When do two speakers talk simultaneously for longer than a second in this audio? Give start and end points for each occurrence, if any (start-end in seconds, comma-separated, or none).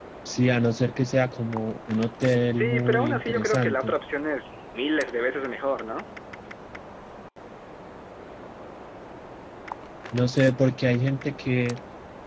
2.6-3.9